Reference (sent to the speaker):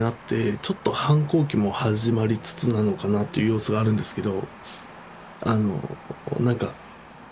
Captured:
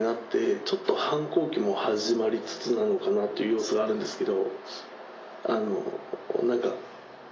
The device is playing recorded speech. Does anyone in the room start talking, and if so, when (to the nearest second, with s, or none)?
none